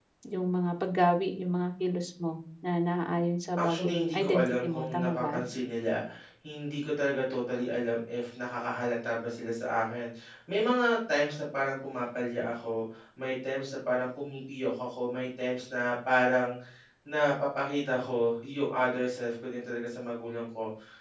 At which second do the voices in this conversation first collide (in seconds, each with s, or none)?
3.6 s